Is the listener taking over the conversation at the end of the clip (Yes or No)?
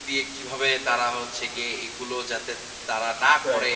No